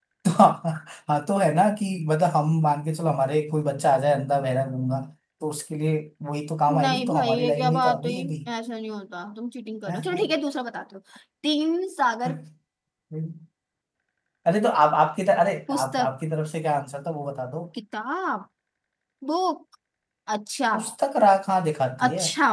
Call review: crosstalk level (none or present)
present